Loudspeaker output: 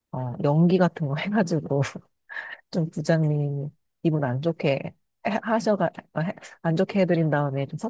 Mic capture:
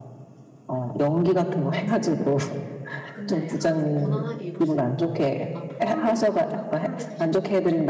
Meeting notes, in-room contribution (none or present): present